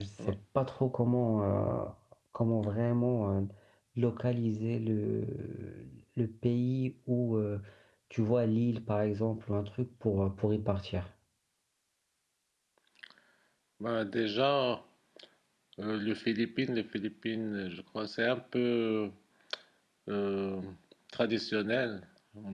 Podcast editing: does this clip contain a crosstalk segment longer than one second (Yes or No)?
No